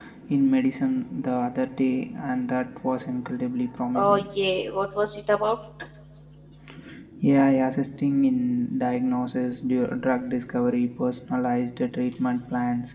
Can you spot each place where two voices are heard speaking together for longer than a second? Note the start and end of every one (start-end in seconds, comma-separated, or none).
none